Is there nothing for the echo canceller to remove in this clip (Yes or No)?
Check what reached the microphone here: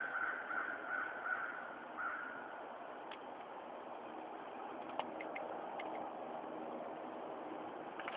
Yes